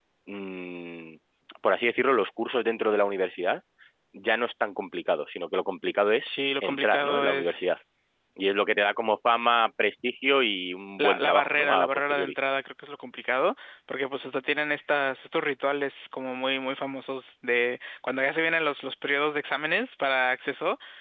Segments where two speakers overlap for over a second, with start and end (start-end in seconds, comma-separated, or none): 6.2-7.8, 11.0-12.3